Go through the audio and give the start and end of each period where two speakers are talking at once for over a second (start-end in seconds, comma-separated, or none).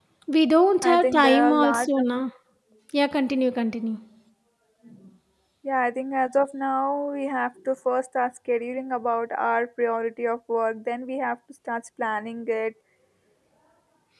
0.8-2.2